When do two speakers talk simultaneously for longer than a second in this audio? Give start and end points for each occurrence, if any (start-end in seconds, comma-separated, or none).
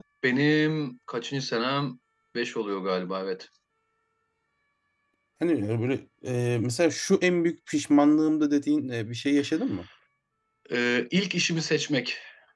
none